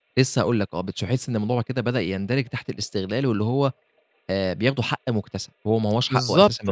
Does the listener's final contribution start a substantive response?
Yes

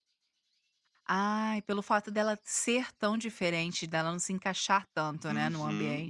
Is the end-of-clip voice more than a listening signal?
Yes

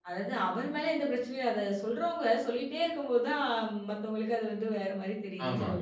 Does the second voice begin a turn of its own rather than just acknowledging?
Yes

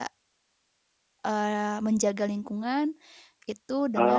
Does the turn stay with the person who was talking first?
Yes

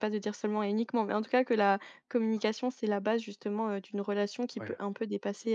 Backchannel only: Yes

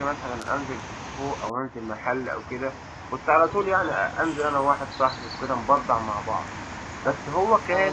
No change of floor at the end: No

